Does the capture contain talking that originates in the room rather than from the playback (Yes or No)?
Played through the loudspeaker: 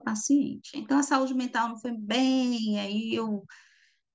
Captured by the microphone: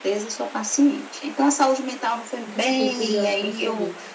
Yes